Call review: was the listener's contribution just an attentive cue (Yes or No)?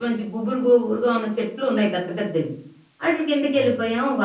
Yes